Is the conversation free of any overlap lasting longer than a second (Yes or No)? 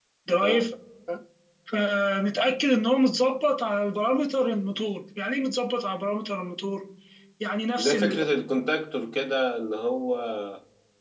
Yes